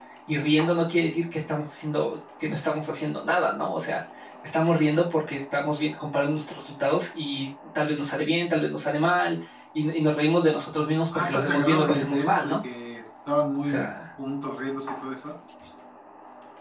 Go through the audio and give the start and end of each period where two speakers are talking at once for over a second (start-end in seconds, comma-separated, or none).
11.1-12.6